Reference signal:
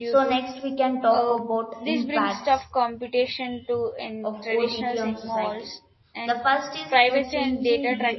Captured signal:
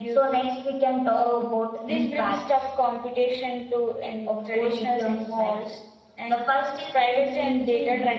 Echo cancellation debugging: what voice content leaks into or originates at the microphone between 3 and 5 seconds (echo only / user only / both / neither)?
echo only